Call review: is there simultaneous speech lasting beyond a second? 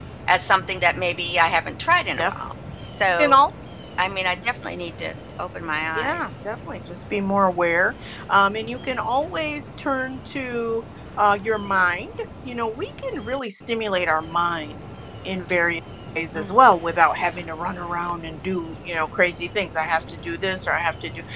No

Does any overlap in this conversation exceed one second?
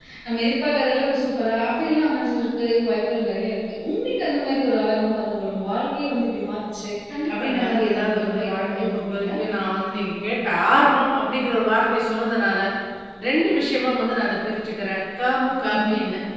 Yes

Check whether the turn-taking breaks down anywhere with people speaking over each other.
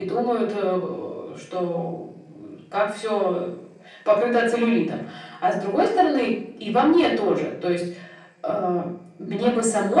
No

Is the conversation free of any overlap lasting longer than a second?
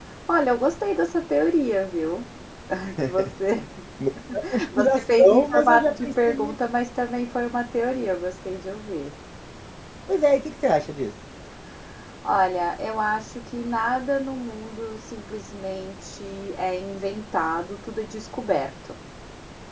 No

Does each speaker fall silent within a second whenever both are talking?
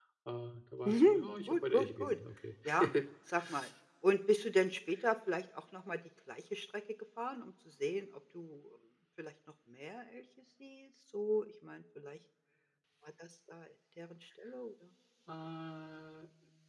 No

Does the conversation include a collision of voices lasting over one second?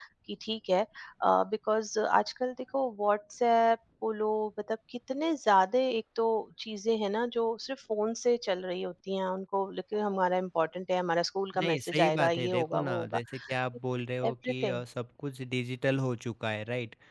Yes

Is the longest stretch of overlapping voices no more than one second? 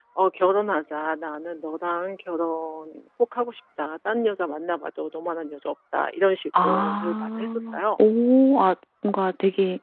No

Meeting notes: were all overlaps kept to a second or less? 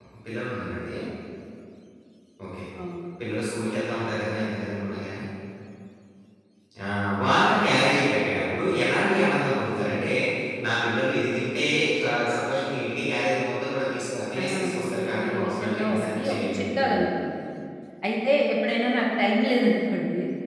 No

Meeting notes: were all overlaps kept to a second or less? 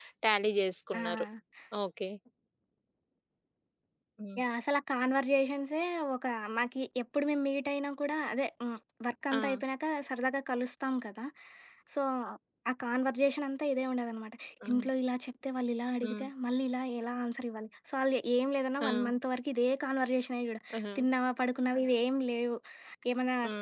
Yes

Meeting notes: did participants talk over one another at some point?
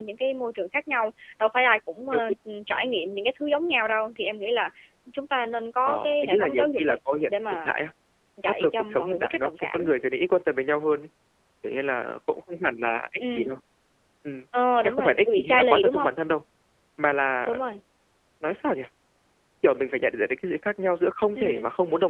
Yes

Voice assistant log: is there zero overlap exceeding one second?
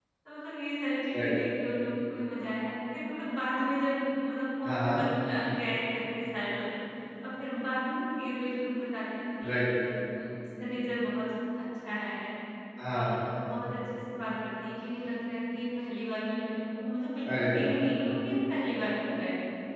Yes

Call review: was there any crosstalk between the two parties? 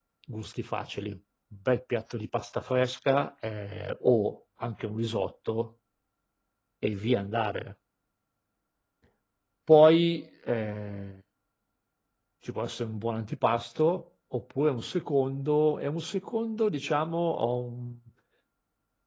No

